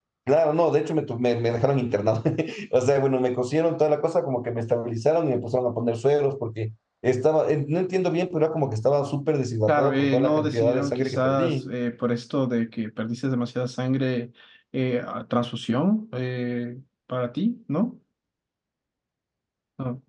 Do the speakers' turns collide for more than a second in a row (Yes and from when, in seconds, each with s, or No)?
Yes, from 9.7 s